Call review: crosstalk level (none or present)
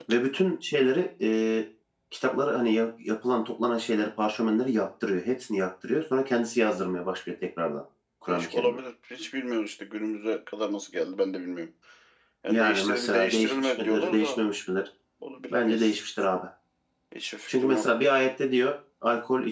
present